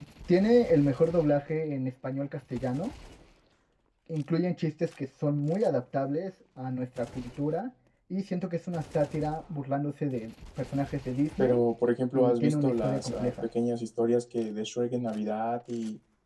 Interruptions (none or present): present